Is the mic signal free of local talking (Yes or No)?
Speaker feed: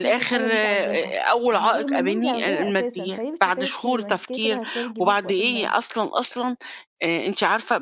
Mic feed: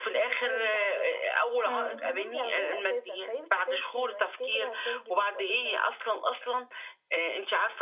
No